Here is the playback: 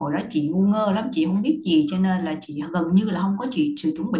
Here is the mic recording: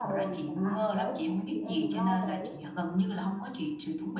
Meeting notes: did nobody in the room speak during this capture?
No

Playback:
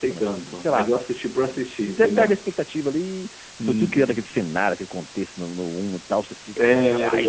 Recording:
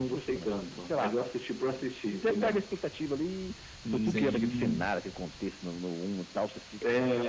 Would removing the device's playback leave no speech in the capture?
No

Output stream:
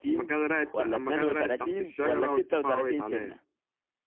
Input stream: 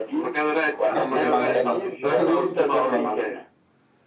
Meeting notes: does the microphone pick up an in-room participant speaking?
Yes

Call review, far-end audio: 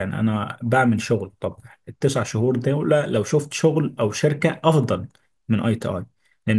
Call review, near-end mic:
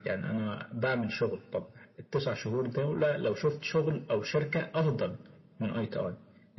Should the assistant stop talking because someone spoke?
No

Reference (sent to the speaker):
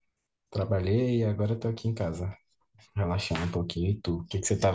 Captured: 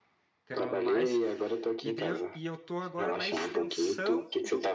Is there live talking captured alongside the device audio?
Yes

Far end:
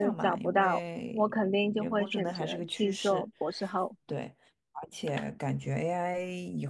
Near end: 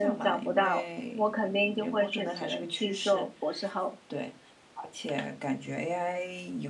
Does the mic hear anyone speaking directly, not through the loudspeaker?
No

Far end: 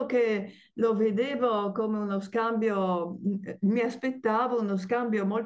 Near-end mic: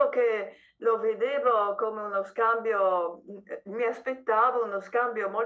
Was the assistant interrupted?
No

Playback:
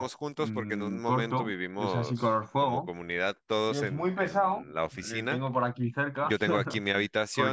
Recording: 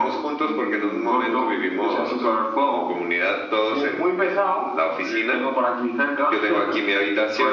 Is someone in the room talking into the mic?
No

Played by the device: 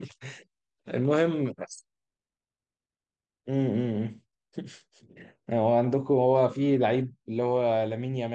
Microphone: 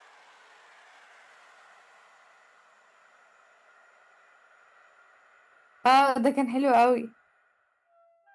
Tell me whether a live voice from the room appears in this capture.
Yes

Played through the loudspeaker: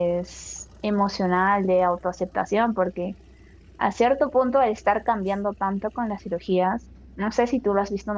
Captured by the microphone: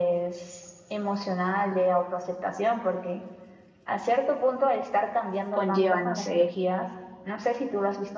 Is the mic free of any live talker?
No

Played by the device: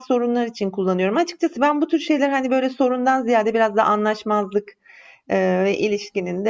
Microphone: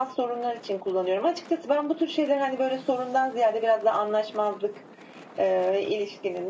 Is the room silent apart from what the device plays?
Yes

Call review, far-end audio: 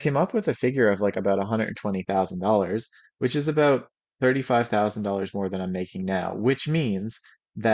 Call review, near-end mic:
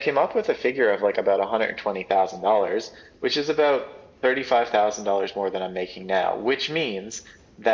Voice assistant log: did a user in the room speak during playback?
No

